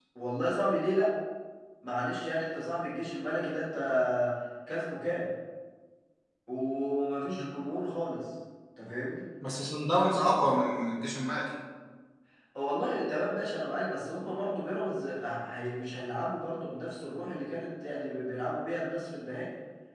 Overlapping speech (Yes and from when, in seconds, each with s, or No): No